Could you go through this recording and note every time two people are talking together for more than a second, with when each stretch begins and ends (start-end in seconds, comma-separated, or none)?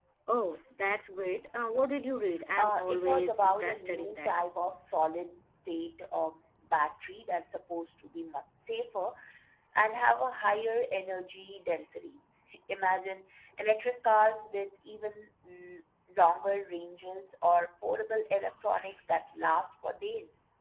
2.6-4.3